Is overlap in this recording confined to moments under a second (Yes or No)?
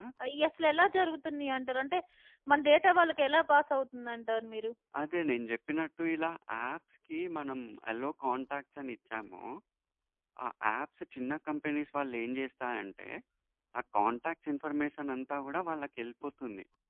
Yes